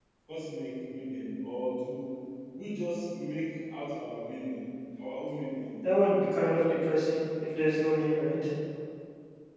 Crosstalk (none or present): none